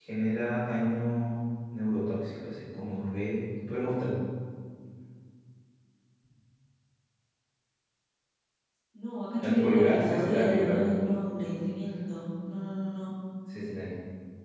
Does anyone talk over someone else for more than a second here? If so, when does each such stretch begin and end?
9.4-11.1

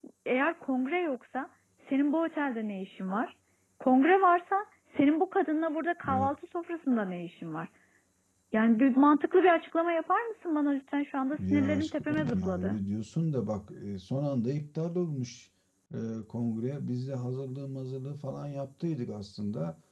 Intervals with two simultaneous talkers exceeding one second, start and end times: 11.4-12.8

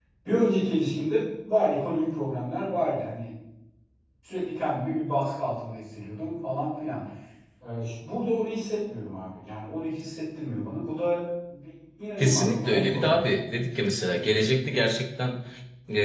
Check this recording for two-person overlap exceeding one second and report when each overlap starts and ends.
12.2-13.4

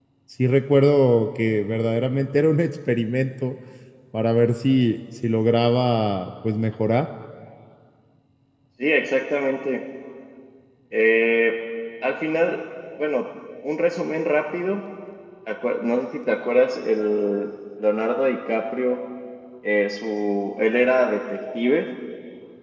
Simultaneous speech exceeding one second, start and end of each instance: none

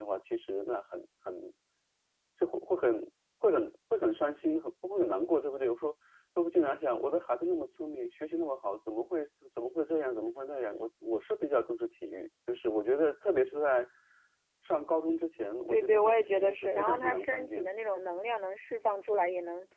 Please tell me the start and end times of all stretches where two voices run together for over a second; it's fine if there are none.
15.7-17.7

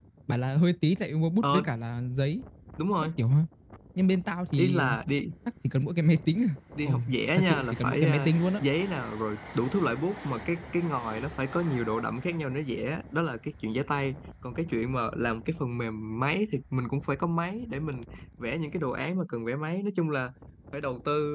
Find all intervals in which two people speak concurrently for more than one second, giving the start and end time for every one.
6.8-8.6

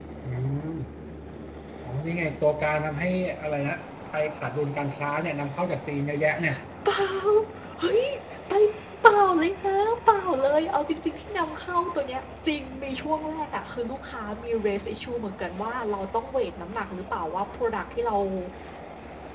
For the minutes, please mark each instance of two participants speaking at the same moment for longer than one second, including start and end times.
none

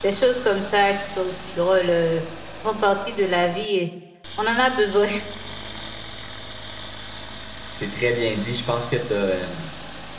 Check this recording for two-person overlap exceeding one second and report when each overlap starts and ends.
none

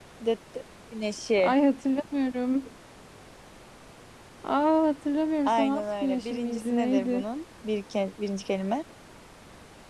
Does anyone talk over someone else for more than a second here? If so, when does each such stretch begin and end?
5.4-7.2

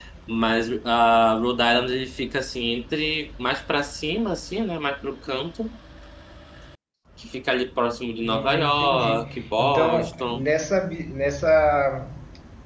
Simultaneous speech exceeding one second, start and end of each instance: 8.2-10.4

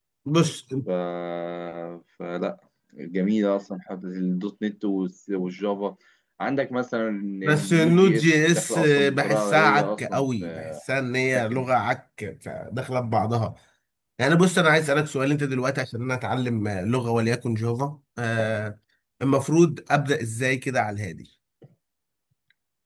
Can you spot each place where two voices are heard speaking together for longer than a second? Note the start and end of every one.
7.4-10.7

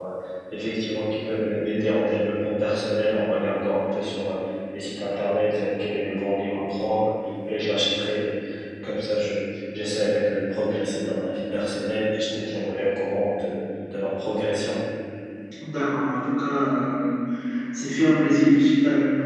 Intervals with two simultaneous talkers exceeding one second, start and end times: none

